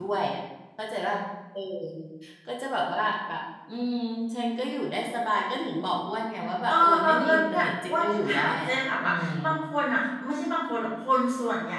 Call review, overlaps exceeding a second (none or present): present